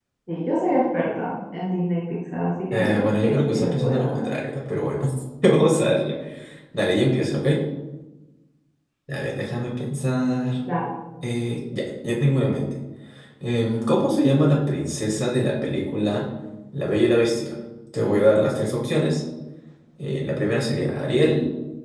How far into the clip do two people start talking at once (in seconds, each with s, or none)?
2.7 s